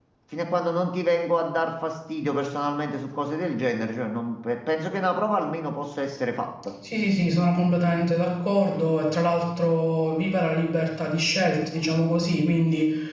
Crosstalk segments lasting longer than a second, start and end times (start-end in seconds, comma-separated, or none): none